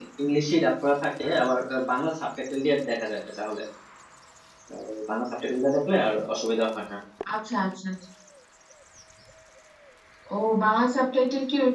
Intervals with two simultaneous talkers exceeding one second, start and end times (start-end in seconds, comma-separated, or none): none